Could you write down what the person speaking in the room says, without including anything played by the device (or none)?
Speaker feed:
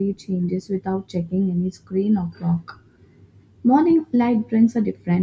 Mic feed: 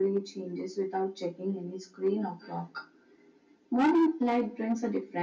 none